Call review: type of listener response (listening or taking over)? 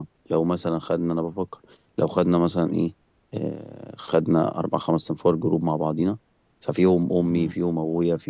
listening